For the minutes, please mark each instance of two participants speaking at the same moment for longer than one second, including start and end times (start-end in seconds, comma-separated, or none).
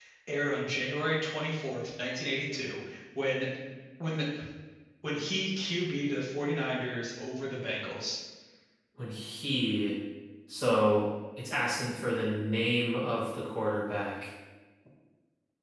none